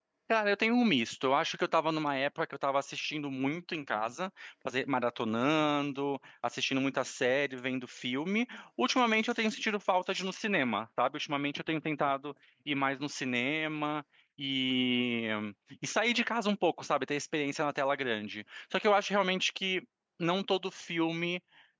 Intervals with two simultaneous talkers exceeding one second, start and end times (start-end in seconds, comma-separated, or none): none